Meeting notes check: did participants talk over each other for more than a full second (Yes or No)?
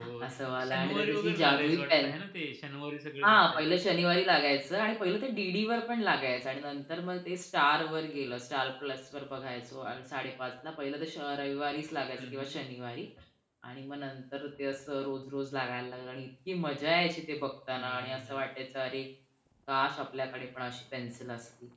Yes